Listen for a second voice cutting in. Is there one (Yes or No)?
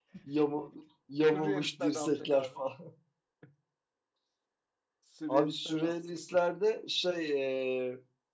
Yes